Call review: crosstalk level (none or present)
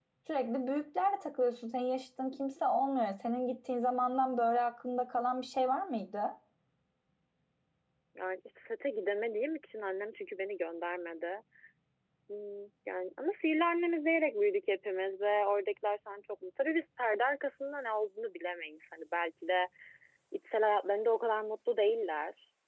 none